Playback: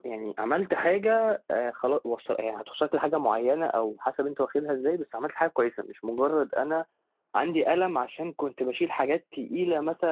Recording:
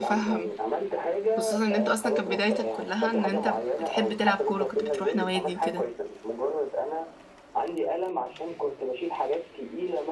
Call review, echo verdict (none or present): present